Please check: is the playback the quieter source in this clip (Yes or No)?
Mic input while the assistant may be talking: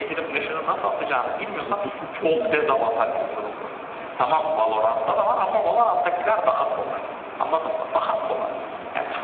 No